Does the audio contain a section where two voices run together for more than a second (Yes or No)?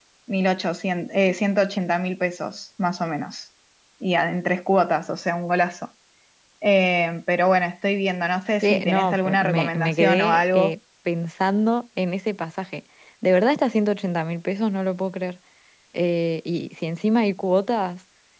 Yes